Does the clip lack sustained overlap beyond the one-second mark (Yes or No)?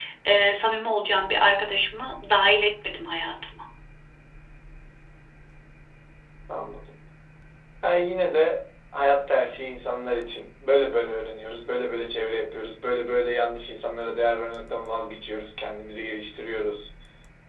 Yes